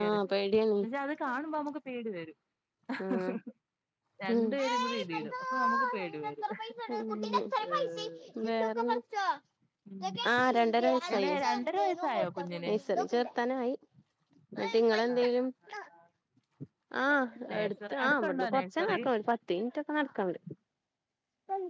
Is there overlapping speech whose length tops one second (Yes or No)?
Yes